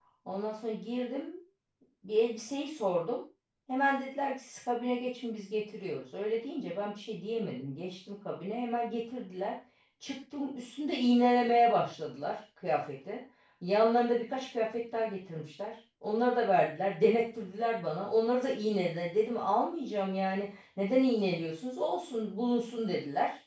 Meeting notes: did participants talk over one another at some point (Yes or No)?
No